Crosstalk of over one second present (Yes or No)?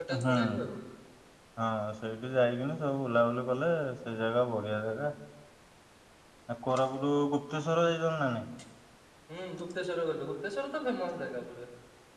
No